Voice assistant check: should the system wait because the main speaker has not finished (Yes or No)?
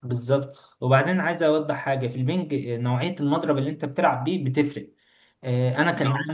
Yes